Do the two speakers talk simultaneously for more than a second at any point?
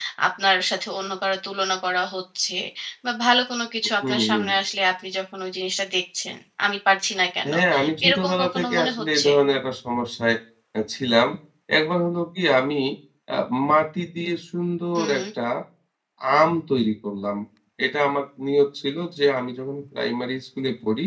Yes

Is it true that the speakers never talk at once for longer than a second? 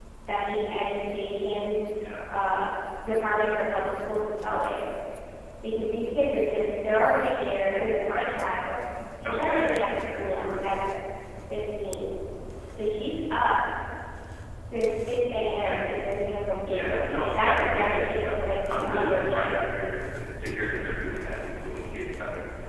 No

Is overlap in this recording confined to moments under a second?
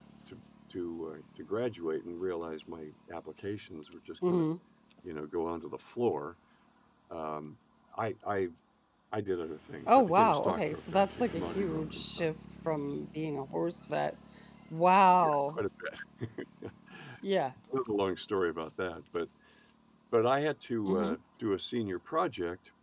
No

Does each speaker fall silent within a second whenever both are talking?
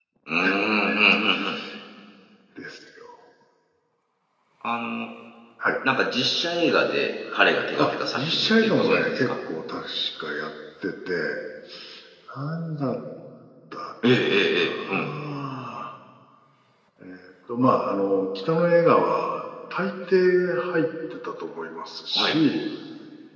No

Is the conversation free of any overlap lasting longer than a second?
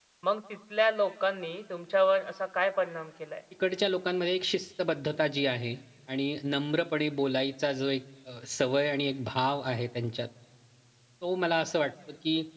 Yes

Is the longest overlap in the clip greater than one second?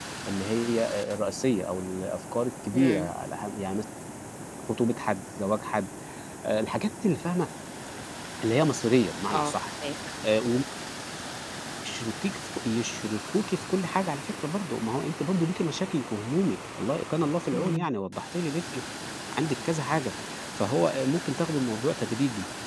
No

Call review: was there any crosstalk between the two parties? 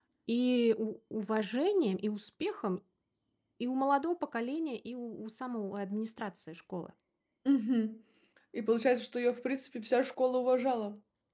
No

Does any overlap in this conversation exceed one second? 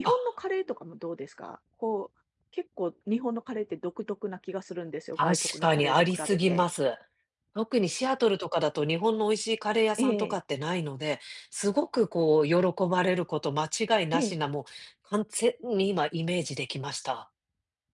Yes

